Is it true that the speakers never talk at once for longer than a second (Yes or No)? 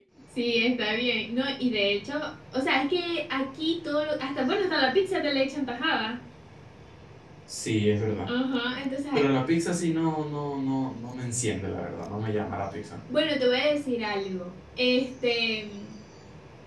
Yes